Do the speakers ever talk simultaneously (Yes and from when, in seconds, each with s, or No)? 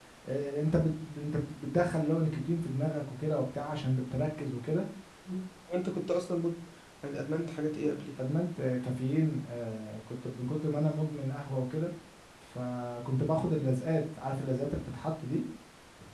No